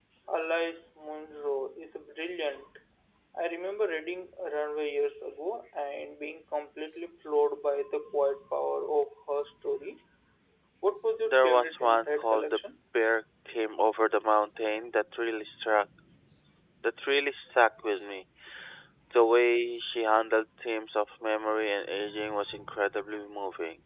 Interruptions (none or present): present